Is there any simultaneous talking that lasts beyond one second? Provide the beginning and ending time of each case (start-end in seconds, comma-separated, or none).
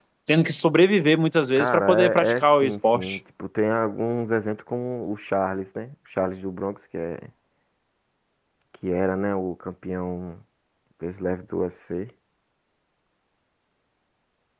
1.6-3.2